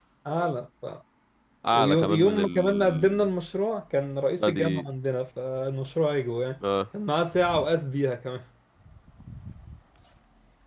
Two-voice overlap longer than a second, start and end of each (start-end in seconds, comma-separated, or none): 1.7-3.3